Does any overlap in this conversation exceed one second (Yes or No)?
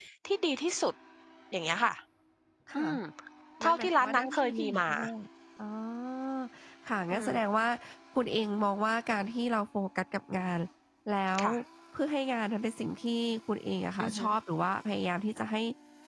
Yes